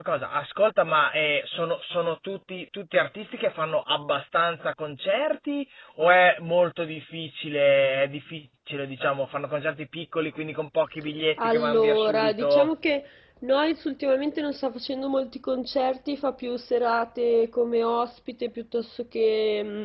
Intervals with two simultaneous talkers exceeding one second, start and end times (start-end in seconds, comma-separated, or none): 11.4-12.7